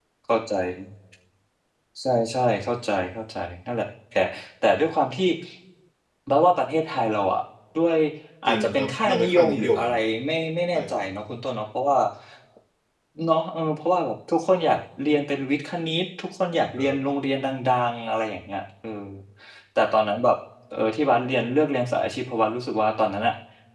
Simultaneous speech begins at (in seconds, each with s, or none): 8.5 s